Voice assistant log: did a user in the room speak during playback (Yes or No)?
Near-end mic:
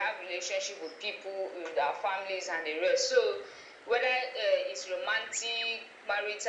No